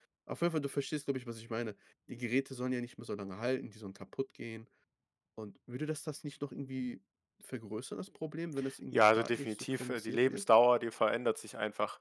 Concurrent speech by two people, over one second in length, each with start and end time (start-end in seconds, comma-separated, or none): 8.9-10.5